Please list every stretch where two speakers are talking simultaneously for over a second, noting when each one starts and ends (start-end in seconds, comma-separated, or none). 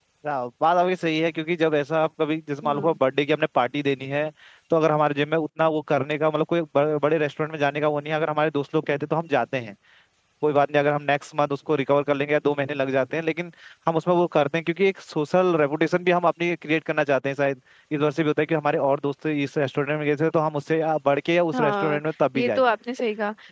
none